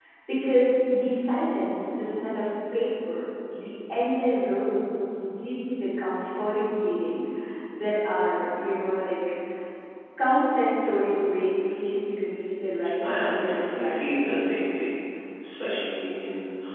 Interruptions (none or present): present